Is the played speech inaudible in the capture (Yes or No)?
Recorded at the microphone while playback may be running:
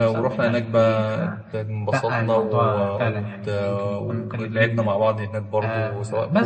No